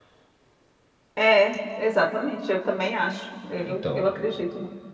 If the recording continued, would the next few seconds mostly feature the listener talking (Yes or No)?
No